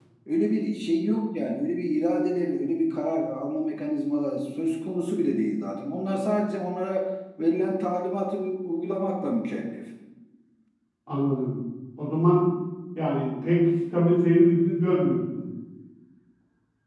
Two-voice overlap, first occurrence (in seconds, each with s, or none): none